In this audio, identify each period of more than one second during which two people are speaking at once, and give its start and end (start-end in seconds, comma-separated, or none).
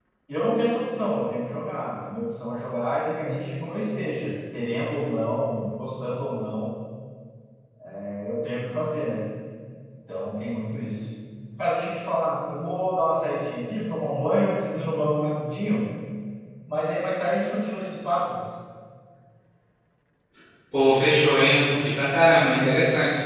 none